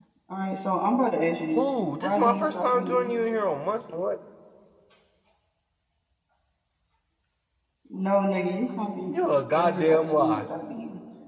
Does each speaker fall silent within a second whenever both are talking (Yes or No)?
No